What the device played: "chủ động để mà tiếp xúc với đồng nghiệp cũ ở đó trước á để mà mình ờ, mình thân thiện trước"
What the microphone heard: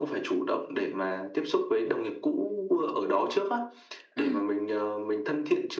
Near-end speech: present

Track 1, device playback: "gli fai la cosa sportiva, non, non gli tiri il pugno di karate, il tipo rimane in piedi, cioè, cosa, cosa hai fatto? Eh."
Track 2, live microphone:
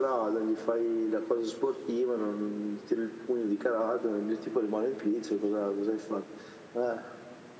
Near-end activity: none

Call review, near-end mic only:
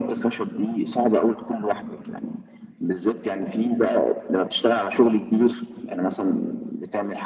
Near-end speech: none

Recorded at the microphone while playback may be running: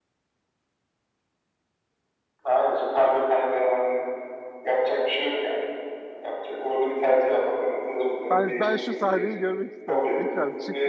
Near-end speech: present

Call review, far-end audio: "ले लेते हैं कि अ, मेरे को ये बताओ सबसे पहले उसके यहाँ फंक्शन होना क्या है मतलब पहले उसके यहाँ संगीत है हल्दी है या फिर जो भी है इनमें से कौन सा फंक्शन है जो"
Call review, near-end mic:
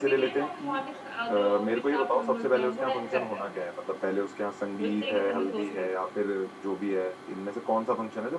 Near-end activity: present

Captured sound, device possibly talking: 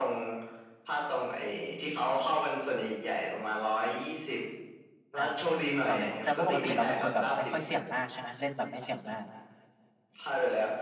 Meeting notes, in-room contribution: present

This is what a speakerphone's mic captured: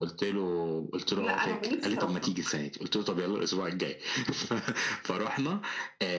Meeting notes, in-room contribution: present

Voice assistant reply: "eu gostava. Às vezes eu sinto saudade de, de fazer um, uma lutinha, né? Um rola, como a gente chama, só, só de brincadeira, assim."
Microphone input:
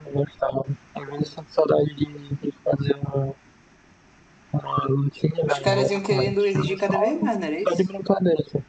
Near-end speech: present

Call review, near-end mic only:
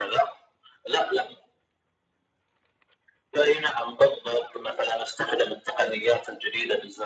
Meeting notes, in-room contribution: none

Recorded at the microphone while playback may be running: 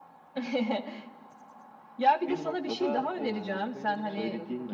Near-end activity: present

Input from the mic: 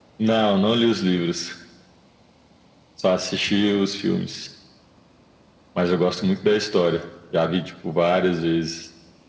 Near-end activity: none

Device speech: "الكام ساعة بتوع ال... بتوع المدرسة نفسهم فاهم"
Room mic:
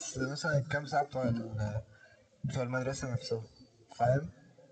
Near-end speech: none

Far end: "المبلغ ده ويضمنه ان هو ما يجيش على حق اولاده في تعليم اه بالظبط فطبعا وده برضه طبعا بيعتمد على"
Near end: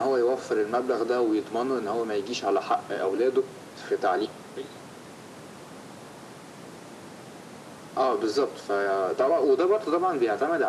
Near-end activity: none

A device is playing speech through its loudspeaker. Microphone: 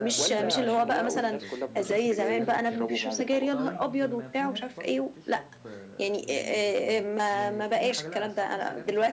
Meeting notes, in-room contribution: present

